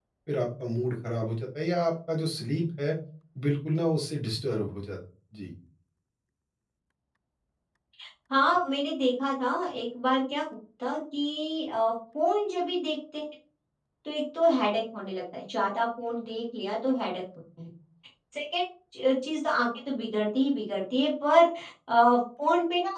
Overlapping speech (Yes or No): No